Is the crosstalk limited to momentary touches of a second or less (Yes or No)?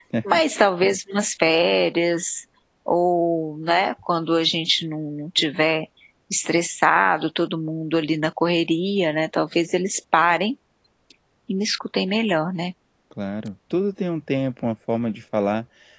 Yes